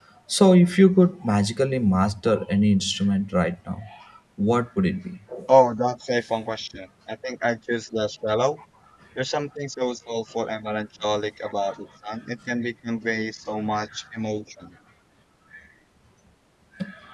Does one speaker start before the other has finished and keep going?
No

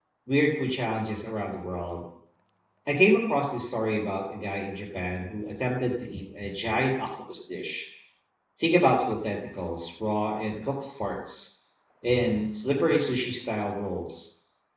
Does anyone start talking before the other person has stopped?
No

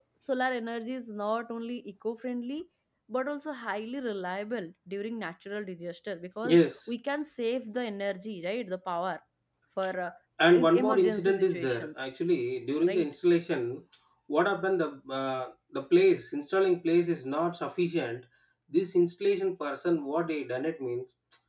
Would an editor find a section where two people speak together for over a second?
Yes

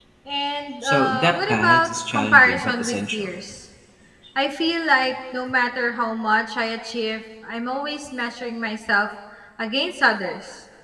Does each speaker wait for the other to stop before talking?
No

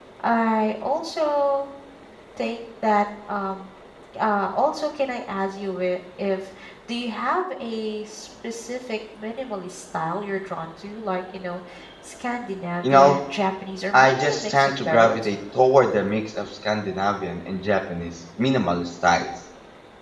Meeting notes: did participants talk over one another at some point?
Yes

